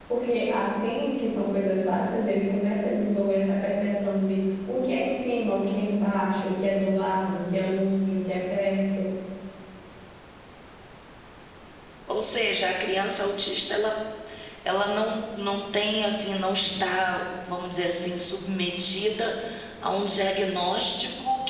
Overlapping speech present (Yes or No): No